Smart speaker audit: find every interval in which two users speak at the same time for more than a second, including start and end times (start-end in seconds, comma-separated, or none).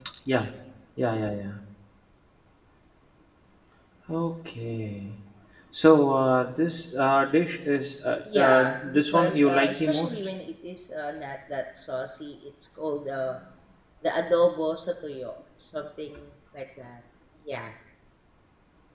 8.3-10.3